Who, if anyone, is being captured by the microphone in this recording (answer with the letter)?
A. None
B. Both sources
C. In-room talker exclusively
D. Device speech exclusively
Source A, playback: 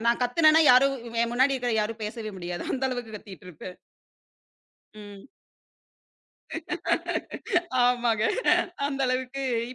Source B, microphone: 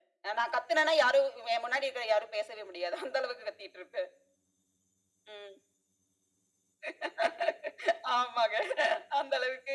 D